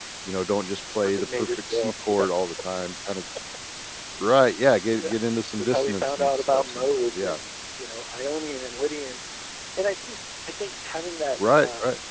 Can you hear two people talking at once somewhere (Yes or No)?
Yes